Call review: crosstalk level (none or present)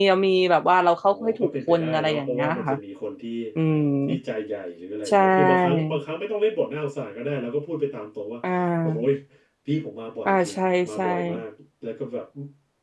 present